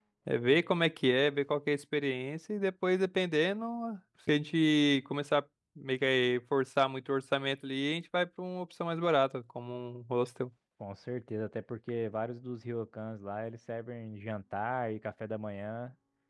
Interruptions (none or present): none